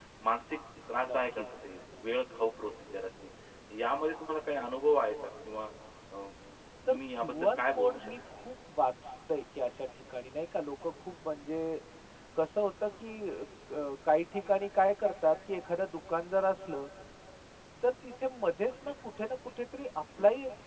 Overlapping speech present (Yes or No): Yes